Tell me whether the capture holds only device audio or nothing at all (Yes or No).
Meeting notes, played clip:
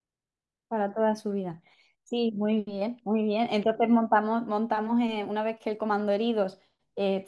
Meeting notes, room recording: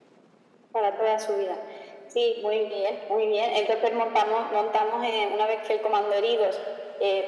Yes